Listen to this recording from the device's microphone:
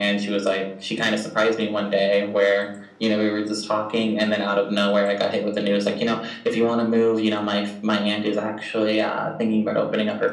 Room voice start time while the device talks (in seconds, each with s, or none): none